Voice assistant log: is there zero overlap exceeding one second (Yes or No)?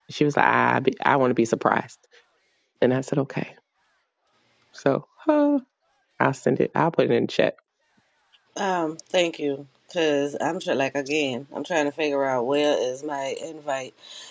Yes